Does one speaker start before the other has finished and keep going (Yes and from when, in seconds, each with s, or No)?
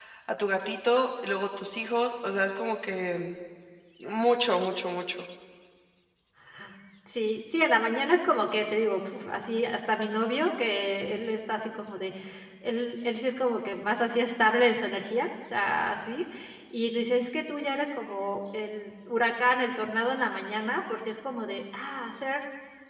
No